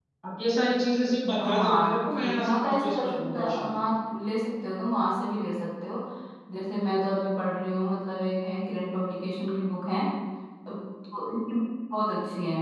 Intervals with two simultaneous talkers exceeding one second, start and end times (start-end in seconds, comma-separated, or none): 1.4-3.8